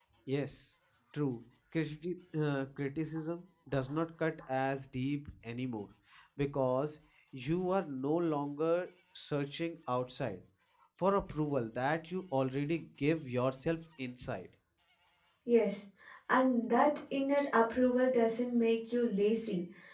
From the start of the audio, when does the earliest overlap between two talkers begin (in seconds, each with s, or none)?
none